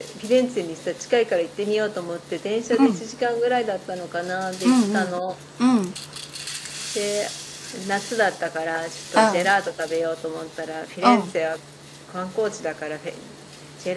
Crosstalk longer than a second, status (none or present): none